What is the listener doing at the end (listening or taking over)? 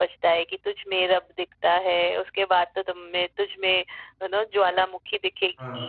taking over